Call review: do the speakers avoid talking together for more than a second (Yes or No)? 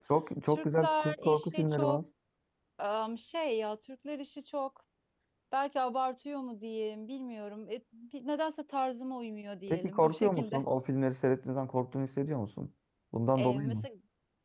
No